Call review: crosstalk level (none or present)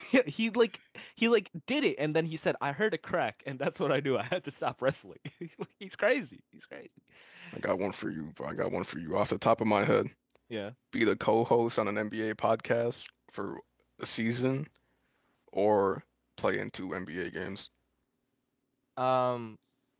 none